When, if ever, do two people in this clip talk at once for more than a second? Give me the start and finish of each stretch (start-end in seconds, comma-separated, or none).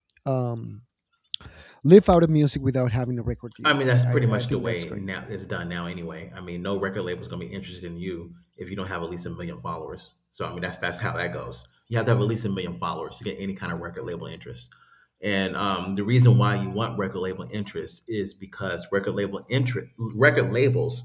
3.6-4.8